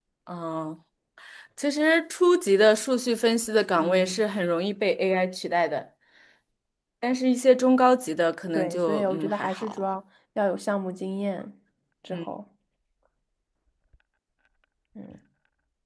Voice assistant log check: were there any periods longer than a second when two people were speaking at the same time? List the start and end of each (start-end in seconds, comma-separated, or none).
8.5-9.8